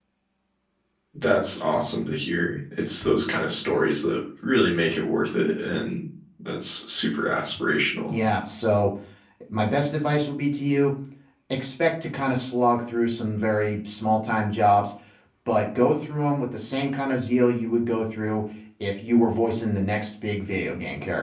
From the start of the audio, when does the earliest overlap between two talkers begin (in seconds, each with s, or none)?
none